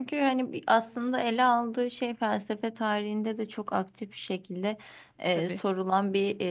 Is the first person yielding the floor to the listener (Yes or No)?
No